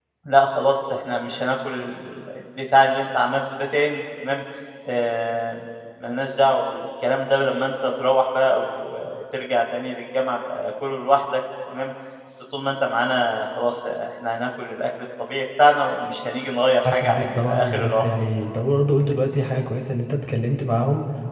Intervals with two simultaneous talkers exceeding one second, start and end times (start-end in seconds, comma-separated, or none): 16.9-18.1